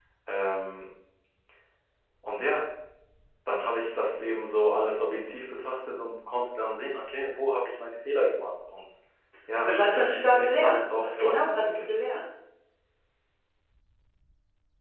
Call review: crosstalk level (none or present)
present